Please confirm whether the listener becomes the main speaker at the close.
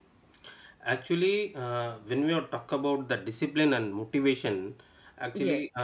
No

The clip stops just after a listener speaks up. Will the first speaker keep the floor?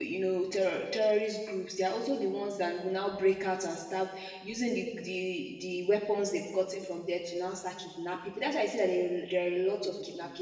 Yes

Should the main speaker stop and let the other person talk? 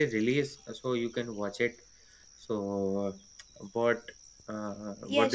Yes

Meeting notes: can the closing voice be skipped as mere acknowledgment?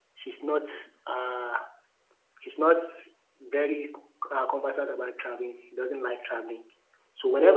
Yes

